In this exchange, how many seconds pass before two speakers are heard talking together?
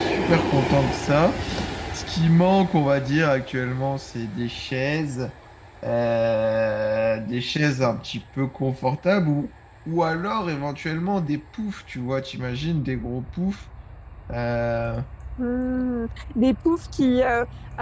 none

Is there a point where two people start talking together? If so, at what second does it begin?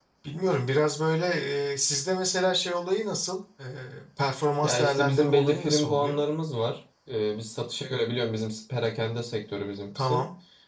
4.6 s

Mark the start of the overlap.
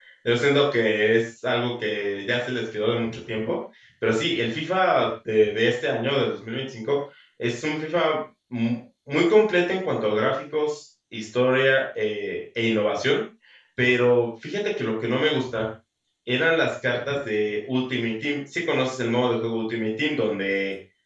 none

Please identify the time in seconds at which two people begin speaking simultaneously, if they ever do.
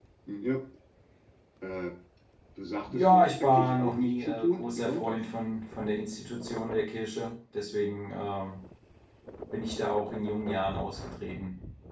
2.9 s

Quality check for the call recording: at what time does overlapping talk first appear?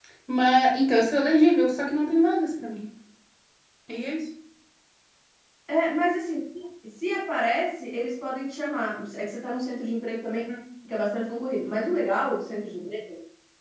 none

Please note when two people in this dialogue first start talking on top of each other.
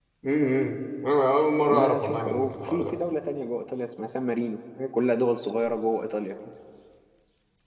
1.7 s

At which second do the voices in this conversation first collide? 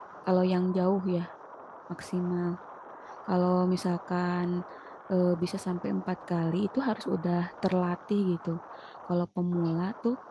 none

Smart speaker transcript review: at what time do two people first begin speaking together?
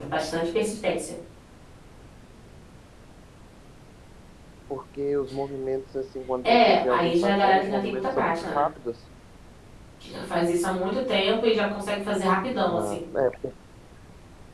6.4 s

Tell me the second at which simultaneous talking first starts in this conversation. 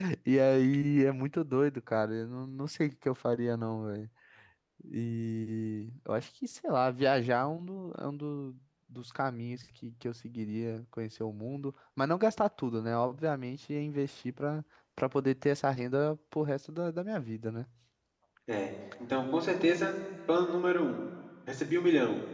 none

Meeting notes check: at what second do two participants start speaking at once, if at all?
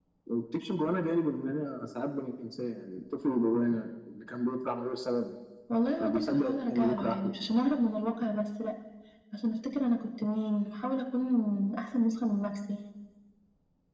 6.0 s

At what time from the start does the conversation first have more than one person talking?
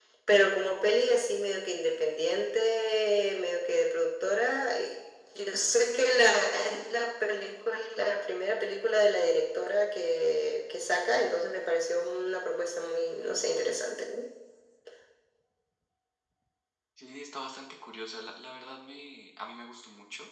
none

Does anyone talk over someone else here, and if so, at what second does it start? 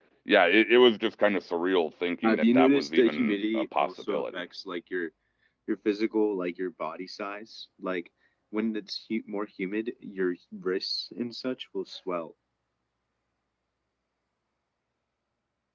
2.2 s

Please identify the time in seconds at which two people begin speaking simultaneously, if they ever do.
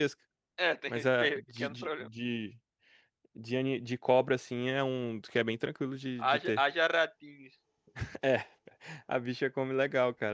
0.9 s

